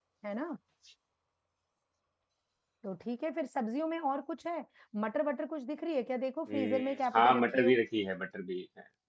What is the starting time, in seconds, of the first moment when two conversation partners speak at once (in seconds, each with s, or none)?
6.5 s